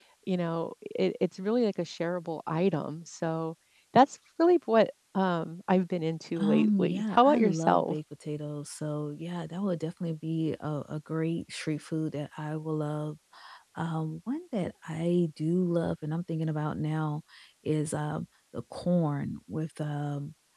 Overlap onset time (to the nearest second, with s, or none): 6 s